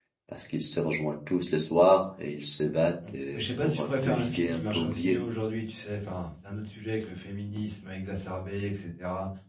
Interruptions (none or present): present